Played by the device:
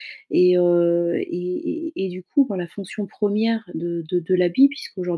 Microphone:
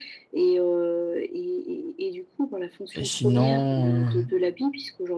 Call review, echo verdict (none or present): present